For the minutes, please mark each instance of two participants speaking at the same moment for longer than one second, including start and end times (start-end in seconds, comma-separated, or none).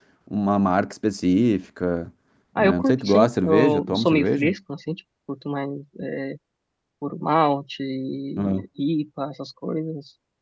2.6-4.5